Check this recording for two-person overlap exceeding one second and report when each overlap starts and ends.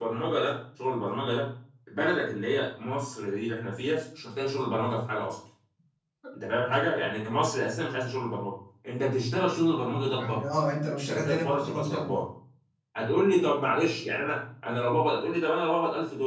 11.0-12.2

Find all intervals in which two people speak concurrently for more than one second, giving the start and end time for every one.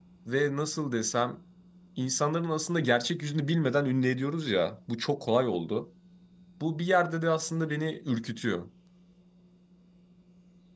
none

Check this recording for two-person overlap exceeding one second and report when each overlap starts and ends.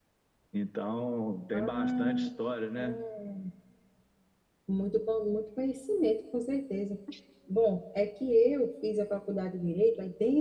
1.5-3.0

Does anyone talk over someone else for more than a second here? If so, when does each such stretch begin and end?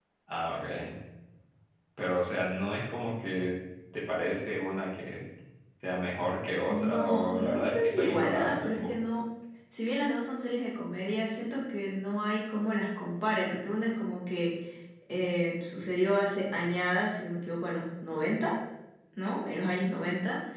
6.7-8.9

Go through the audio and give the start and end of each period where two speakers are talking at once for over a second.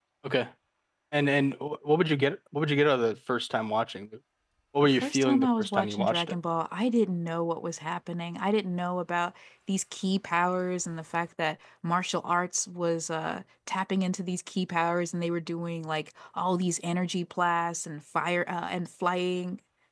4.8-6.4

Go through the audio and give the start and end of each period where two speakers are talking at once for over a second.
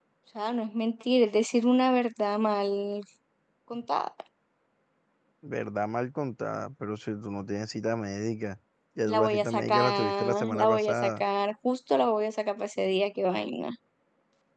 9.1-11.2

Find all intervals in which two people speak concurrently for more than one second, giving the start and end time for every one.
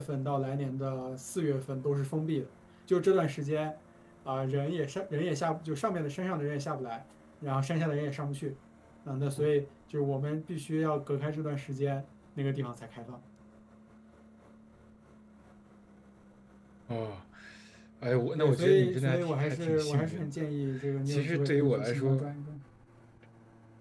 18.4-20.3, 21.1-22.3

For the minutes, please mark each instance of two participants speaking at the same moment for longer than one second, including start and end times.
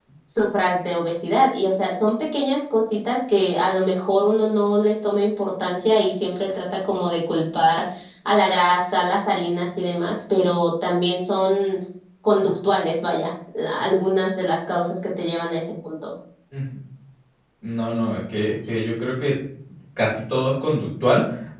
none

